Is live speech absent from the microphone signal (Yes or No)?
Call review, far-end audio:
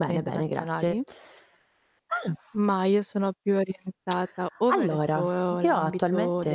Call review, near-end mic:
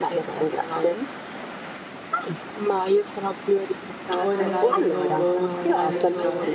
No